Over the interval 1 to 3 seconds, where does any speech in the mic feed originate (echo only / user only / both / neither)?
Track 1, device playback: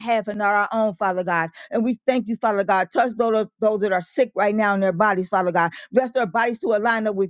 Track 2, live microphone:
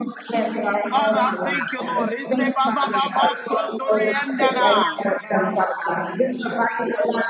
both